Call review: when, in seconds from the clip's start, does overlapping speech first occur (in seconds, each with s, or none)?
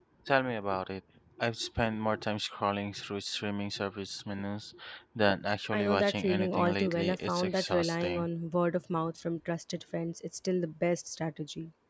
5.7 s